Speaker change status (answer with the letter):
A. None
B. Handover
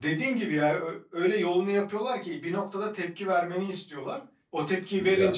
A